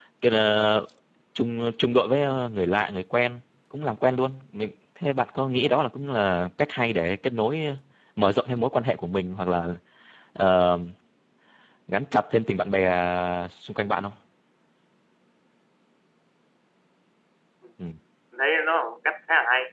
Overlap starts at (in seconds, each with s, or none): none